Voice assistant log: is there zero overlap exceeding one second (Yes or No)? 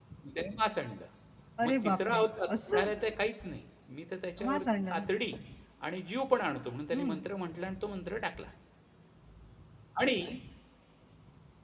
No